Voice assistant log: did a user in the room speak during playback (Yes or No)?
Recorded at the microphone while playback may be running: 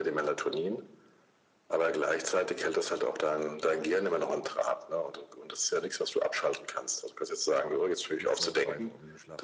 Yes